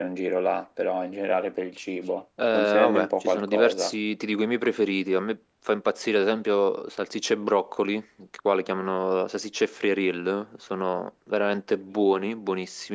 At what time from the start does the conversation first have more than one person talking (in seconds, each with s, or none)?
2.4 s